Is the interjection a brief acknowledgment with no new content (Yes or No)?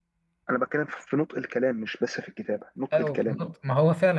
No